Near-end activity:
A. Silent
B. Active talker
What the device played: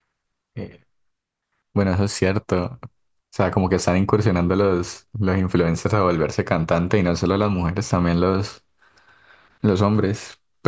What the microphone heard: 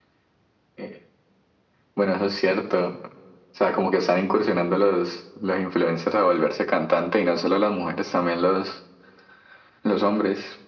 A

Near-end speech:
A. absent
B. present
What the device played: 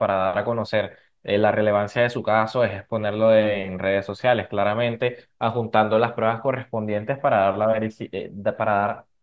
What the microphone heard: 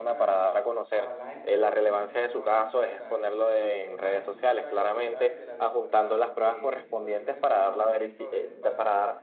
B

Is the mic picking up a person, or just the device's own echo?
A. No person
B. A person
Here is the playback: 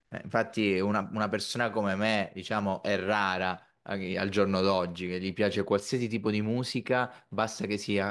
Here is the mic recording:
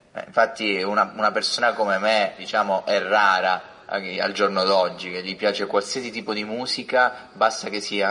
A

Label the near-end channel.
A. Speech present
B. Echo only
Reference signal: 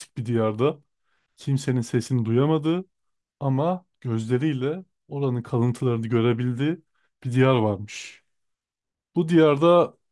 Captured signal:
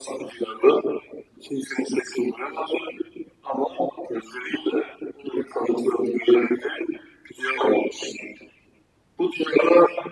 B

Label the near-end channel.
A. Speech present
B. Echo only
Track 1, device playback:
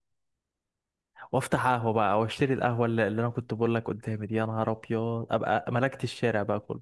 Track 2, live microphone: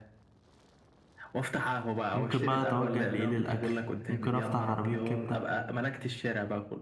A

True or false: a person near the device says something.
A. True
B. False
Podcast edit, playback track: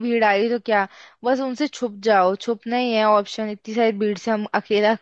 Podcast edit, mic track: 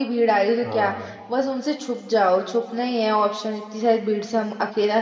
A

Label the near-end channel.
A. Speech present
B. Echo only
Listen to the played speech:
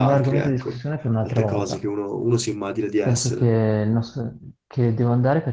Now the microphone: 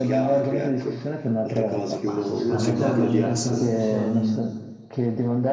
A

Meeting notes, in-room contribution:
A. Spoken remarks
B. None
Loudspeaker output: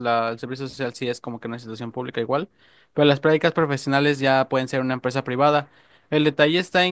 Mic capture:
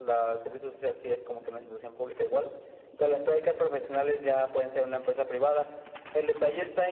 B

